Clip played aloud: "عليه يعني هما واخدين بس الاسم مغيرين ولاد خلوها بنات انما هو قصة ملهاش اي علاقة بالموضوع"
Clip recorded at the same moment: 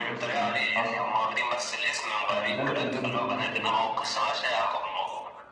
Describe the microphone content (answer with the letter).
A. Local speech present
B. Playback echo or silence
A